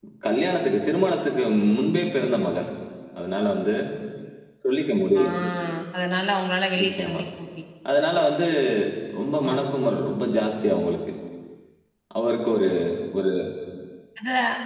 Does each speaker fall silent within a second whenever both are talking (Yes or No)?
Yes